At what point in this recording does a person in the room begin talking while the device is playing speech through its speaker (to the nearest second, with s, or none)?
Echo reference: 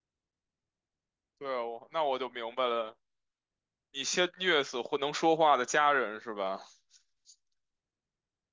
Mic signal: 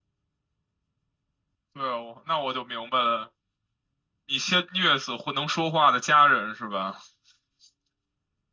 none